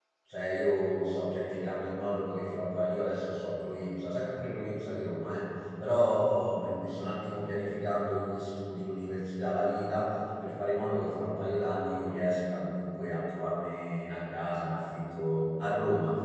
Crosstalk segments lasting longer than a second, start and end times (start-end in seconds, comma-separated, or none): none